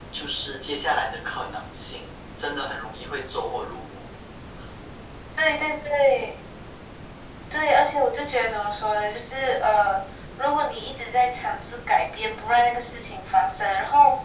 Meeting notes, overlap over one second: none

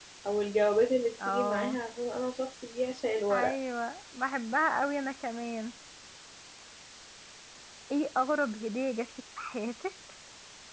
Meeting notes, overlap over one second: none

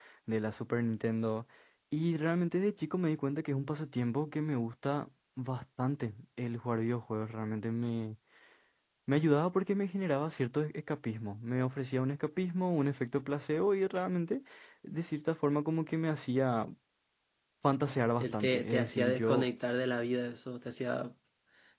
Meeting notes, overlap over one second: present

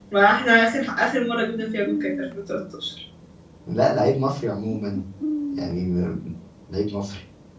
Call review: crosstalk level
none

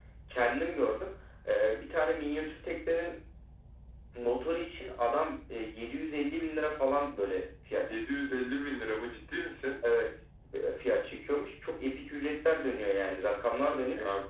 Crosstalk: none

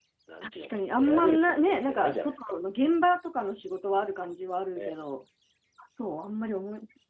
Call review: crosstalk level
present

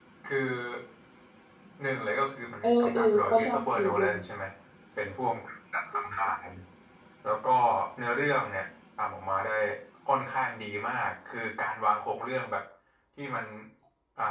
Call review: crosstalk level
present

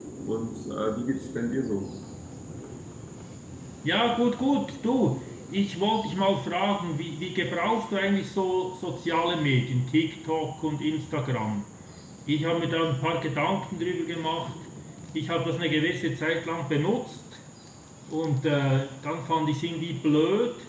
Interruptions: none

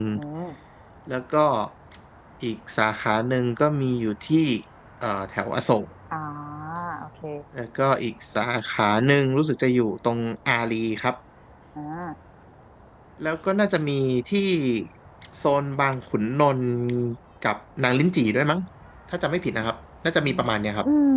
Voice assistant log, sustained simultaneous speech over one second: none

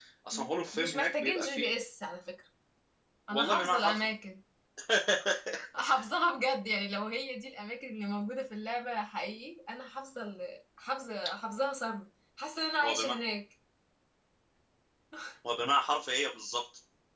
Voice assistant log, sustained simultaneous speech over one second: present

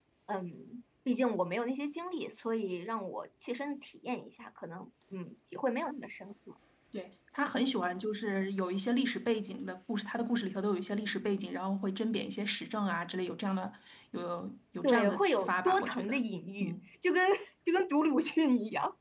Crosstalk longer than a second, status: present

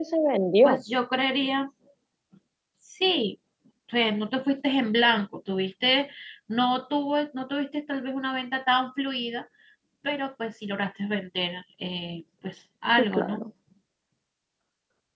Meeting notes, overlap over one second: none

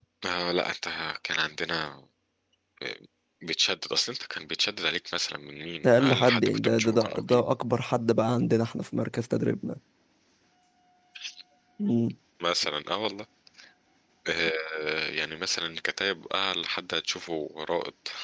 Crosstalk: present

